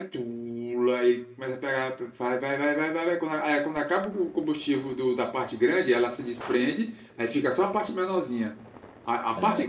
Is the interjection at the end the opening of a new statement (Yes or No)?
No